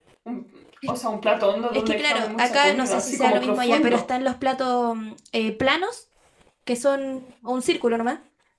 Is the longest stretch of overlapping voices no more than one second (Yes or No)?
No